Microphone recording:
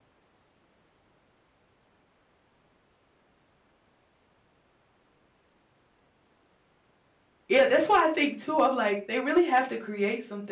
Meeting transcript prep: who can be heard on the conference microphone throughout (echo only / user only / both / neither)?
user only